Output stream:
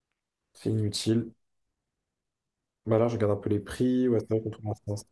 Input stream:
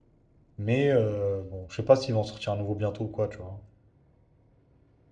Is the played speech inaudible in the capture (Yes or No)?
Yes